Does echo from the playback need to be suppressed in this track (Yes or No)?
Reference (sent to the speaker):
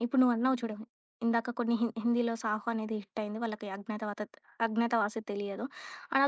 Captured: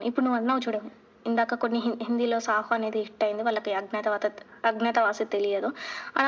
Yes